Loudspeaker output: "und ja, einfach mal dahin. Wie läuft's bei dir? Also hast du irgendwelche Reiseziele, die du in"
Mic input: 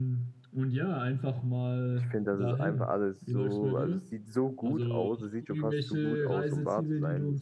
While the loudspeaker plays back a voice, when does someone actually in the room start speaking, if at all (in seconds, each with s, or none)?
1.9 s